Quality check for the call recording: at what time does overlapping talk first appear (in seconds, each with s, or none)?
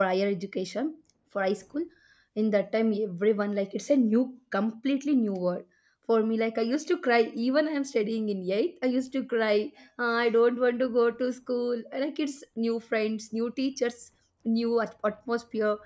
none